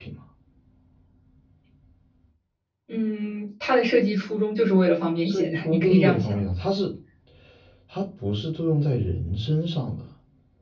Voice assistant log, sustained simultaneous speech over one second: present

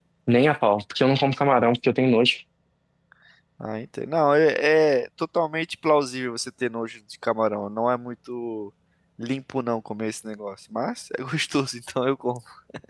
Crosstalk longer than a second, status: none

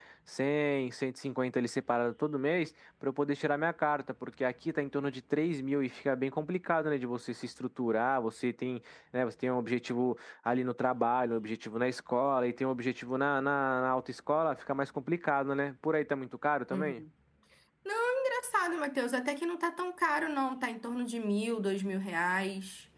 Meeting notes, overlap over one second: none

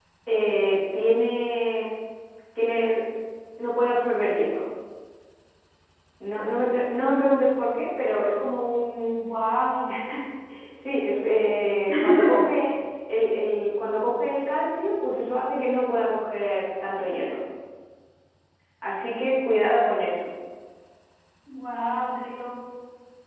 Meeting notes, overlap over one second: none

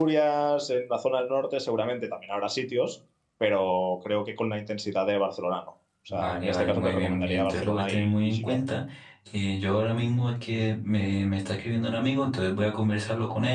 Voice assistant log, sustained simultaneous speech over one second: present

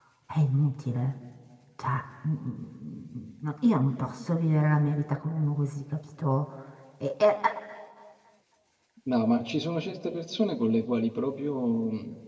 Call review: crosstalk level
none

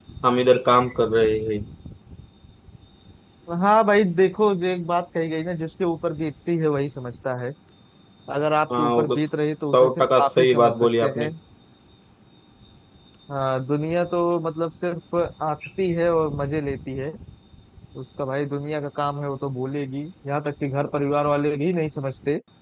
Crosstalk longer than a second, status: present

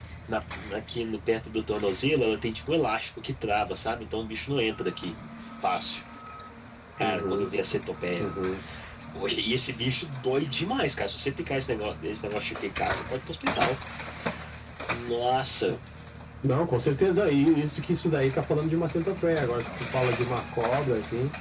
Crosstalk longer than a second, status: none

